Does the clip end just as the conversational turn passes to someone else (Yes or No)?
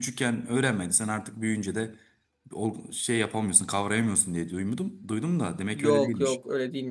Yes